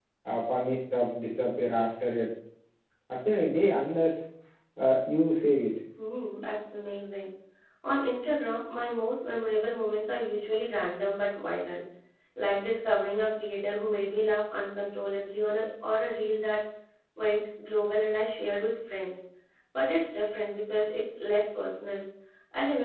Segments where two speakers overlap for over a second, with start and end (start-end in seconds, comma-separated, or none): none